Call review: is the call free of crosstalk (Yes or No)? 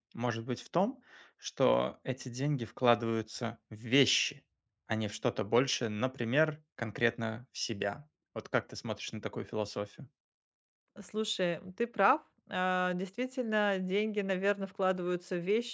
Yes